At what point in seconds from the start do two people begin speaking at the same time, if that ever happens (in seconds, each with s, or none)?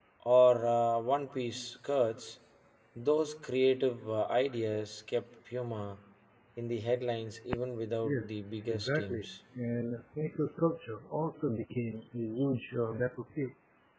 8.0 s